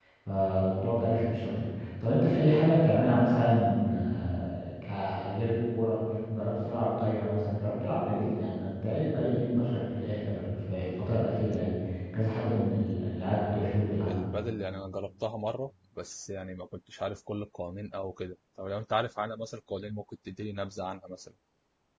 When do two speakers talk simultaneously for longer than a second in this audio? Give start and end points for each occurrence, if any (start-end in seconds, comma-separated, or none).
none